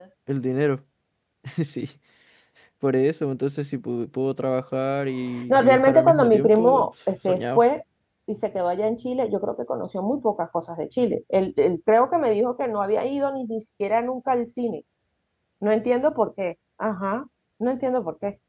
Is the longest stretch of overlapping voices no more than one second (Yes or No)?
No